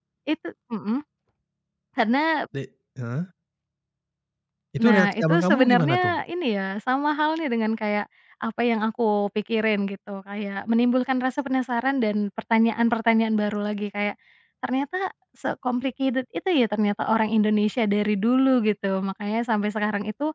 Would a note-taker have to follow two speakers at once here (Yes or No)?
Yes